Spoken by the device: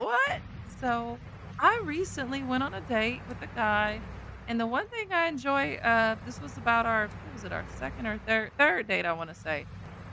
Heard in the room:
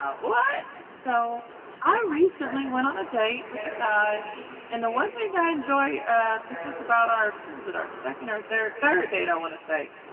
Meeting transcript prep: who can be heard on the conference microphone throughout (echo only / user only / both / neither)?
both